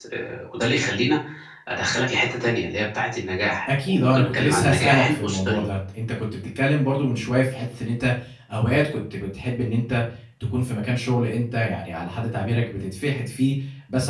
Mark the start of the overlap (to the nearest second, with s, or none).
4 s